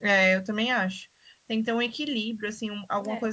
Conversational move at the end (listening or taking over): listening